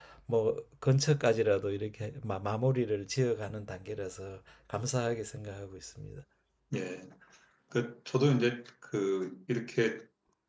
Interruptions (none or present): none